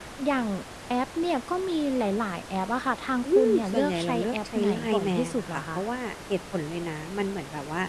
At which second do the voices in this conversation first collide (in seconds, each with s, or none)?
3.2 s